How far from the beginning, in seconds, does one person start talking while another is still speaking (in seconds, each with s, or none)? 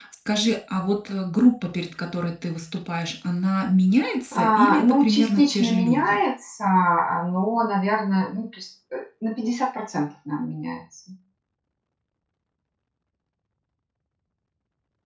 4.3 s